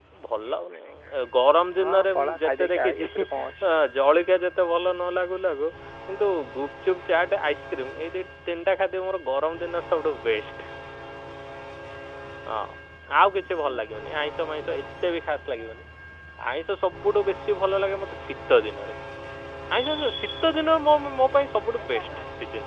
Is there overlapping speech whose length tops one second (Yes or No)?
Yes